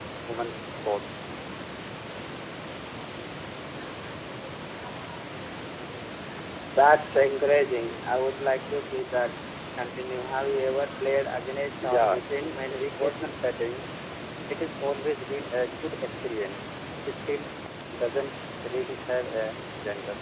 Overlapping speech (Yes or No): Yes